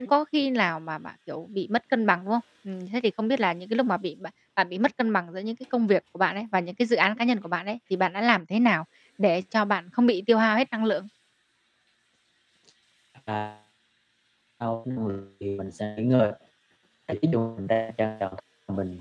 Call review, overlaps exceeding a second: none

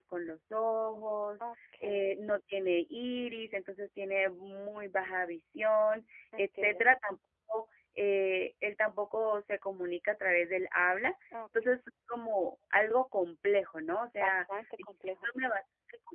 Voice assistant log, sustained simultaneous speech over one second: none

